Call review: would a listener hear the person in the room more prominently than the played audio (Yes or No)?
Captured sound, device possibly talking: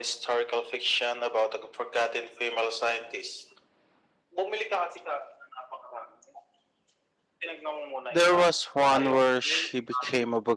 Yes